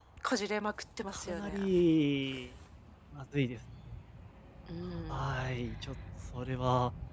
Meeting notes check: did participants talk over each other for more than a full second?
No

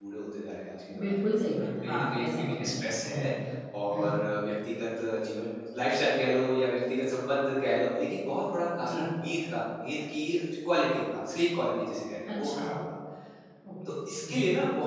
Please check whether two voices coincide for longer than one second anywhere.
Yes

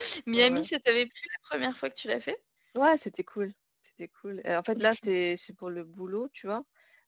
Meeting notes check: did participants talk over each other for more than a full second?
No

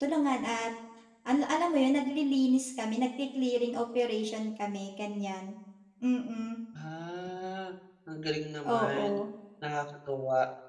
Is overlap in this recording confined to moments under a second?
Yes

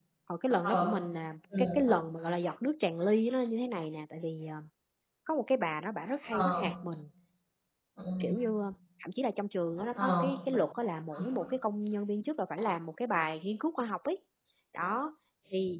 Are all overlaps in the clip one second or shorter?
Yes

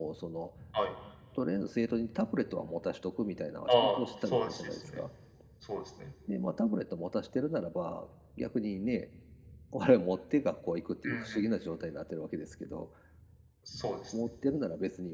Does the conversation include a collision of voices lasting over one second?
Yes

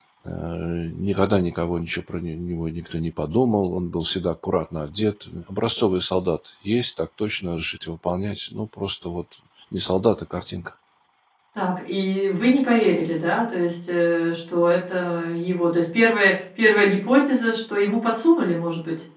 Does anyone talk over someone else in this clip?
No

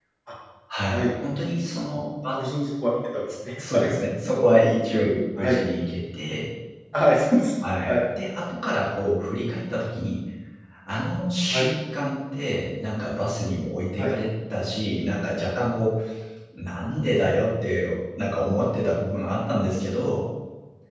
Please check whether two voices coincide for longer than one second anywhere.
No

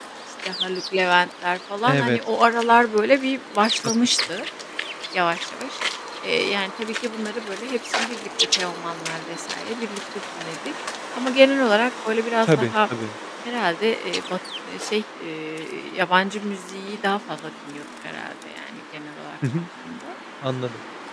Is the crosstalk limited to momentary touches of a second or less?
Yes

